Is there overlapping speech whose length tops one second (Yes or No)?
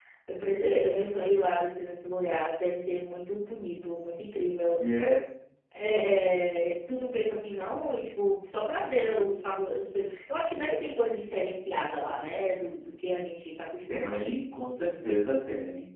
No